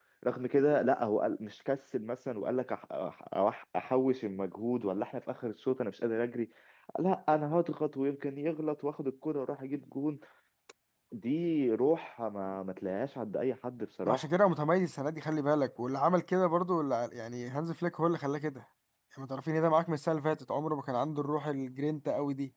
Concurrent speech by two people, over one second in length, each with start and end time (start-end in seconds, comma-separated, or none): none